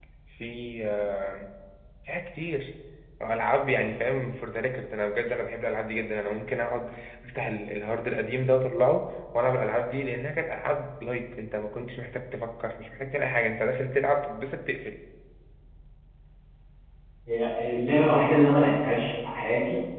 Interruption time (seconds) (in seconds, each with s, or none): none